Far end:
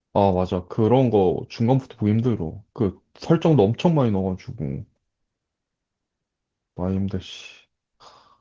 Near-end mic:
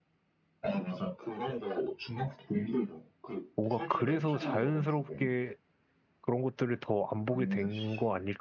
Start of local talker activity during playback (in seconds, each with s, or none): 3.6 s